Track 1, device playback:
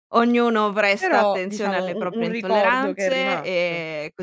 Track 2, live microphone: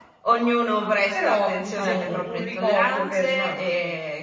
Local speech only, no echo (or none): Ci sei tu.